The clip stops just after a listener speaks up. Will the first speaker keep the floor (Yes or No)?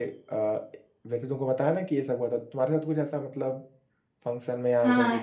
No